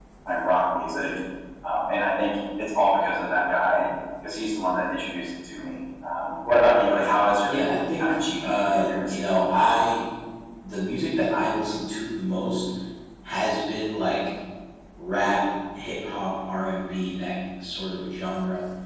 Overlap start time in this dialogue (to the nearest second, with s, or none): 7 s